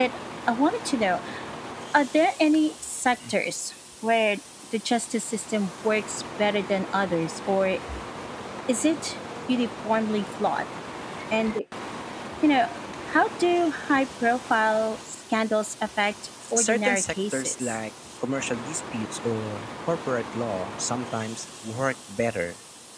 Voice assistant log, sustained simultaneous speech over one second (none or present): present